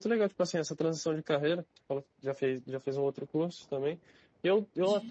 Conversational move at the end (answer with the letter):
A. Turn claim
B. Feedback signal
B